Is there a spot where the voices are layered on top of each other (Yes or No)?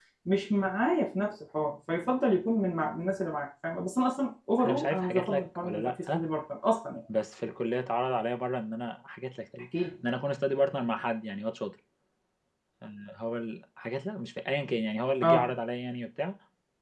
Yes